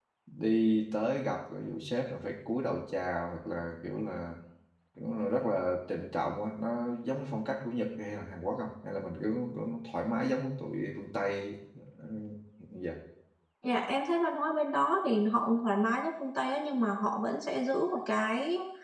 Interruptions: none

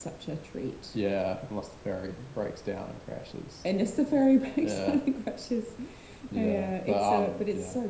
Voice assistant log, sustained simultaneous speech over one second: present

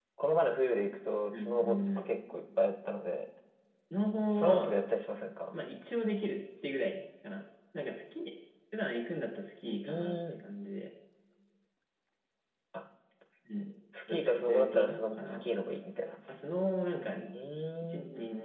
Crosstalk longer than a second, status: present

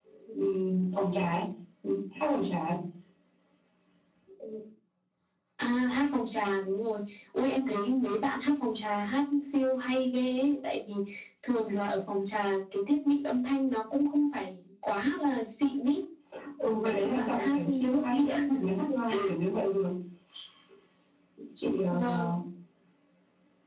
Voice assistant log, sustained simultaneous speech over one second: present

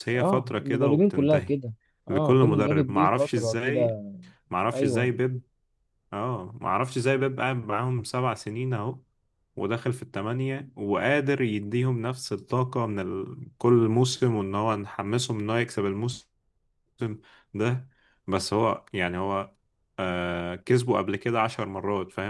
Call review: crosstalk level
present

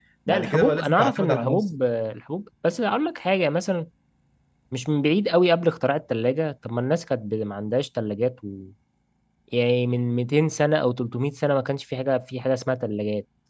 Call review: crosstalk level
present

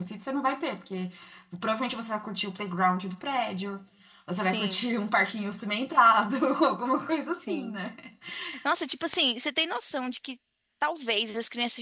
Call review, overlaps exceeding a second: none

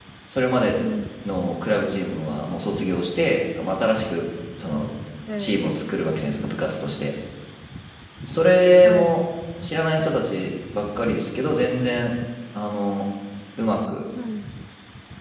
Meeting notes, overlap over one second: none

